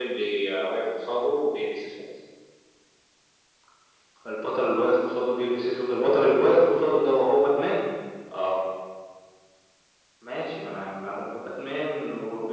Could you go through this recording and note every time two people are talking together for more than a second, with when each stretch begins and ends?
none

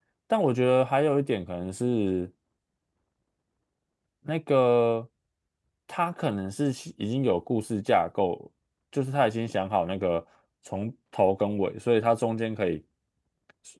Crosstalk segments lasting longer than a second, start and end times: none

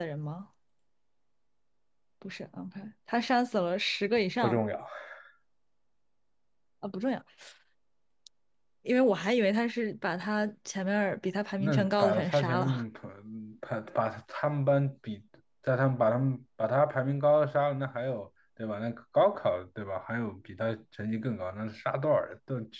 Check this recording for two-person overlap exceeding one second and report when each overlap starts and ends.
11.6-12.8

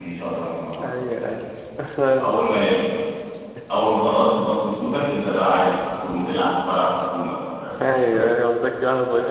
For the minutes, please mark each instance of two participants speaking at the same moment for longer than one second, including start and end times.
none

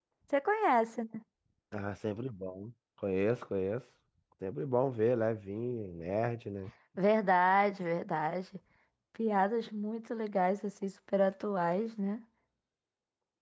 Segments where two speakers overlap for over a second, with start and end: none

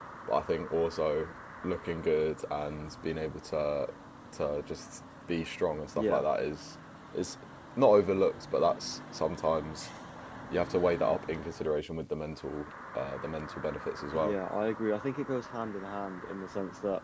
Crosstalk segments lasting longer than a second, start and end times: none

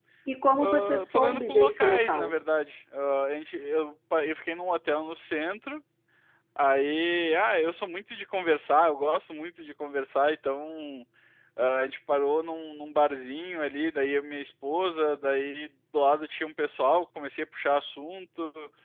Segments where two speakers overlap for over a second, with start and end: 0.6-2.3

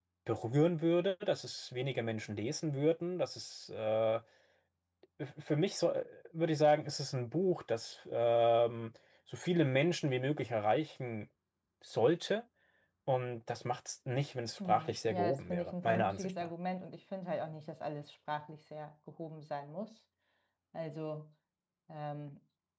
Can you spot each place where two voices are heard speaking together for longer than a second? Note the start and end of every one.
14.7-16.5

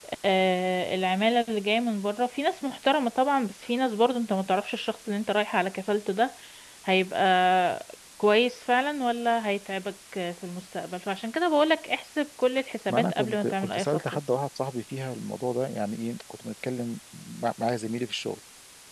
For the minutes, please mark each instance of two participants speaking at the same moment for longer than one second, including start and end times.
12.9-14.2

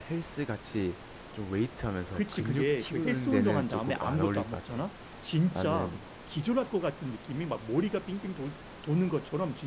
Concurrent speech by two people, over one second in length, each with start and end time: 2.1-4.8

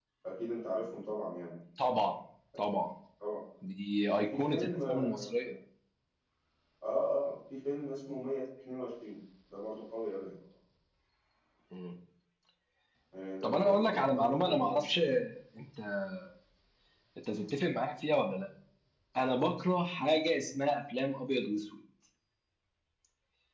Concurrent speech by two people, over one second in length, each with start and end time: 4.2-5.5, 13.4-14.8

